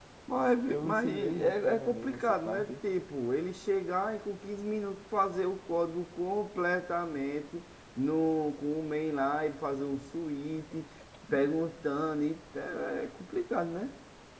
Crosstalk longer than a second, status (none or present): present